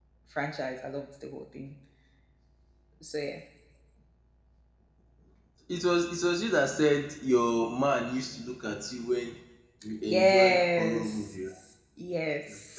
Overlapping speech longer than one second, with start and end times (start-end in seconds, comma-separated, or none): 10.1-11.5